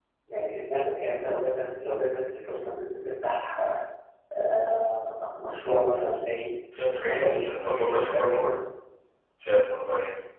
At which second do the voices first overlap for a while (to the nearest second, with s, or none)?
7 s